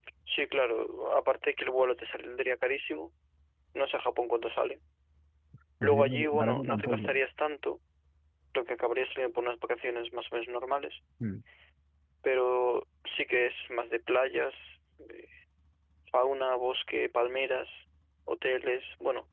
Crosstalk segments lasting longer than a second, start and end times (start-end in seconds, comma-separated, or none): 5.8-7.2